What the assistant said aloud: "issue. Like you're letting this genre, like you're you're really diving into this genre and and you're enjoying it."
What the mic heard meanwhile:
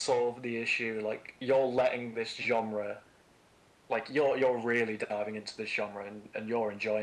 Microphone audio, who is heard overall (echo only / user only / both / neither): echo only